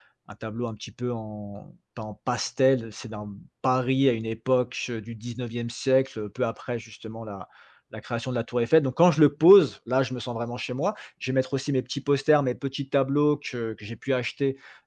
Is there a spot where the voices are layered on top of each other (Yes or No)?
No